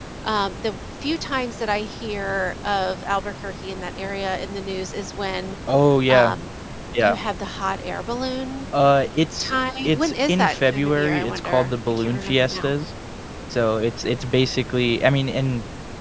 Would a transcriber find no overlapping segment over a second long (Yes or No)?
No